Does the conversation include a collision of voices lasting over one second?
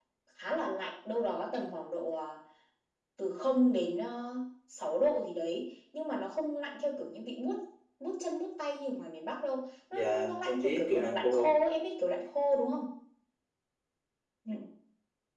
Yes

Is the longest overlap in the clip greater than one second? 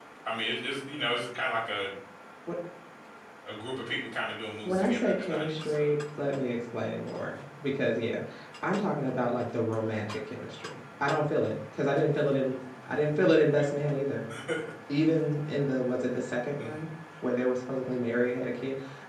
Yes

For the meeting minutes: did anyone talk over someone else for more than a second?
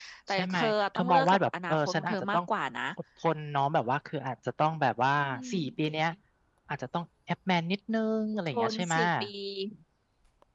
Yes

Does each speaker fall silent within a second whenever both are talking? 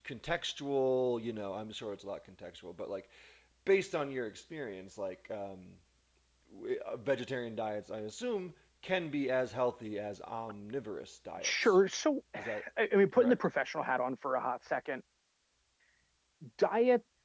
Yes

